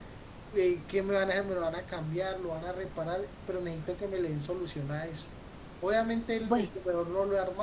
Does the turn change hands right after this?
No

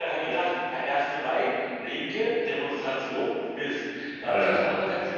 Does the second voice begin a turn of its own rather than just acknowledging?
No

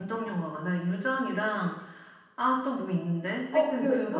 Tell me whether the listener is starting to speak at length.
Yes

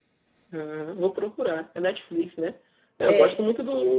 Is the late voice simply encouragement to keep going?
Yes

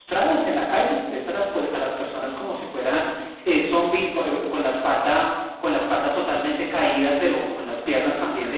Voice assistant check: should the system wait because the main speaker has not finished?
Yes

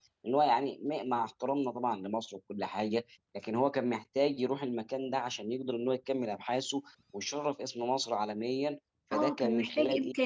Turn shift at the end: Yes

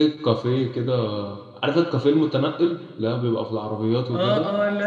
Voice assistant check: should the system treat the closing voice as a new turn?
Yes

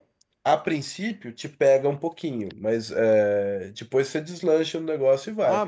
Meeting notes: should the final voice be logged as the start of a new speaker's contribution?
Yes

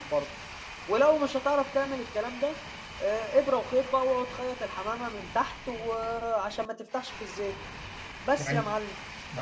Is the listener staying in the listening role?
No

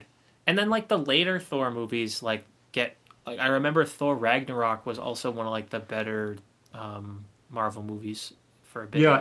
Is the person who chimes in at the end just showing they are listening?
No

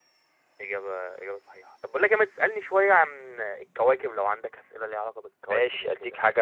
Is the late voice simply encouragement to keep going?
No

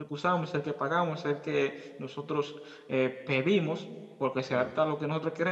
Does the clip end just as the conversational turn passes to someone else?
No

